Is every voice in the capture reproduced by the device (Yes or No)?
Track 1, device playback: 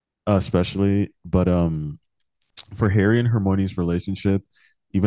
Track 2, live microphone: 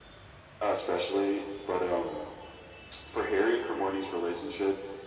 Yes